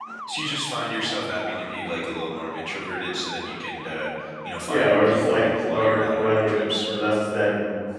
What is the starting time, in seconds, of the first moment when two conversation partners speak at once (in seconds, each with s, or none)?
4.7 s